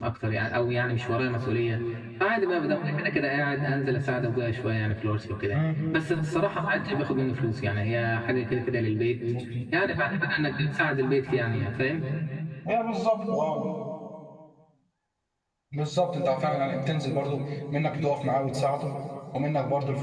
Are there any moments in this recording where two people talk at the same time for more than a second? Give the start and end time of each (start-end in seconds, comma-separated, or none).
none